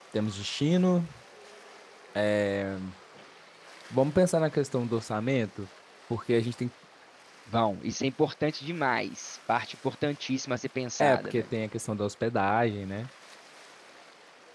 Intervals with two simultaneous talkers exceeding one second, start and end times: none

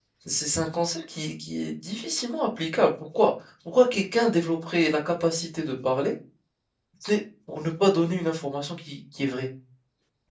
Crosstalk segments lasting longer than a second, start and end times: none

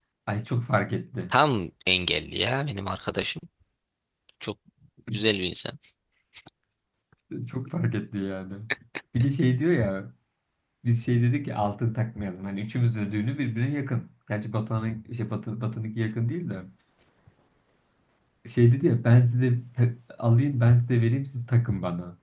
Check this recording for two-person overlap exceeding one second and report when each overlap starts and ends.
none

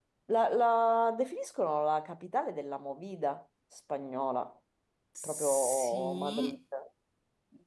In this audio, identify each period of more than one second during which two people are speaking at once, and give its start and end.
5.2-6.6

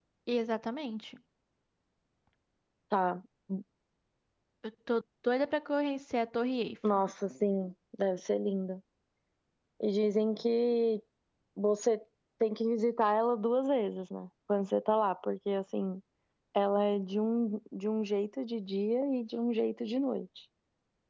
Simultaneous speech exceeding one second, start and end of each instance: none

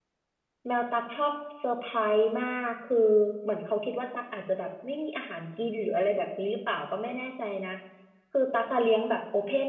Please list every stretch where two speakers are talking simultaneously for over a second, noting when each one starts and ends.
none

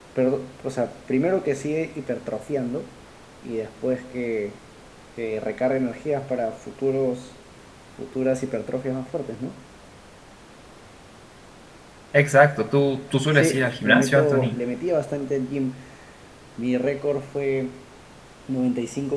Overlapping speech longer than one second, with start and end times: 13.3-14.6

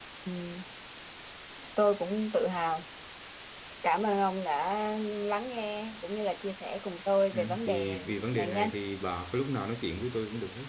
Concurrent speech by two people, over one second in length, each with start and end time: 7.3-8.7

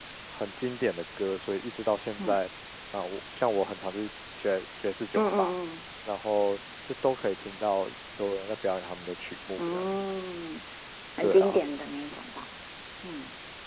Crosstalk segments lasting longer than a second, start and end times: none

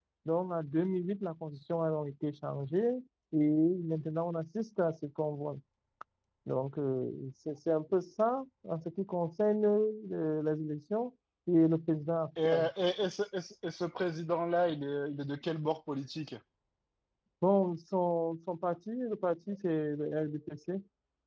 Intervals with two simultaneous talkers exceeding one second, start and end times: none

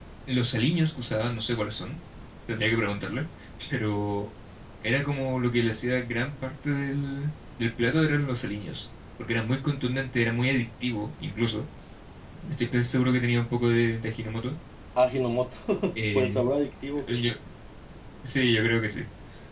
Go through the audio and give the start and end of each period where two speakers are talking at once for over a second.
none

